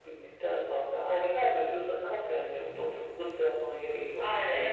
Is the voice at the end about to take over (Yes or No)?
Yes